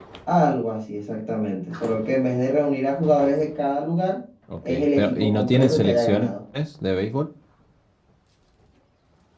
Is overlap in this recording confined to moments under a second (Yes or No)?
No